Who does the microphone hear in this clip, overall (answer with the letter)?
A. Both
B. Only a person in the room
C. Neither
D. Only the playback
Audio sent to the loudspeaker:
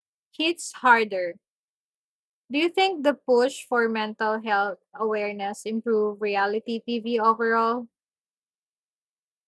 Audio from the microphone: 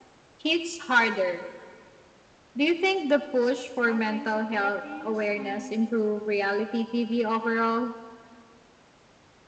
A